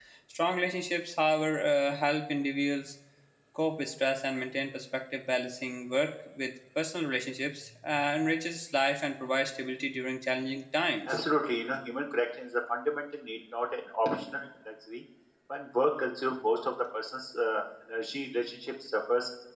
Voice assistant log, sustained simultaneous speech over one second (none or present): none